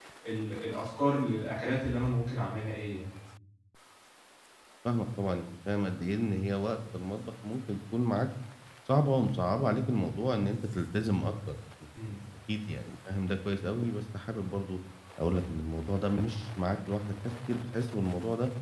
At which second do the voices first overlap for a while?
none

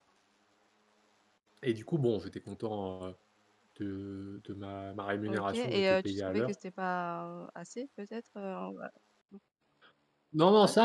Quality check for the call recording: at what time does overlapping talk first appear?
5.3 s

